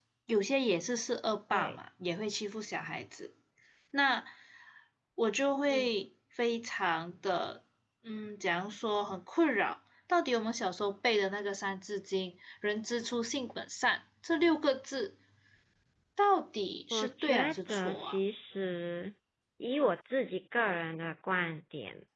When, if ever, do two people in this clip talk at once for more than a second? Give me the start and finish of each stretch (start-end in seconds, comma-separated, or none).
16.9-18.2